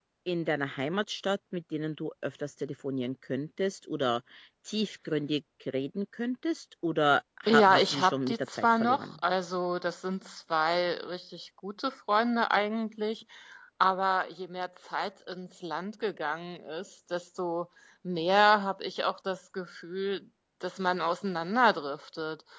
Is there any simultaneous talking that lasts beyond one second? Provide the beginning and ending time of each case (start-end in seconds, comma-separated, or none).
7.5-9.1